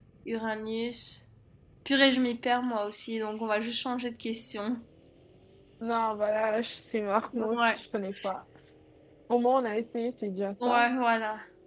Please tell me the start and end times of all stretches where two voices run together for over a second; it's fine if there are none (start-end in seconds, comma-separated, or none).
none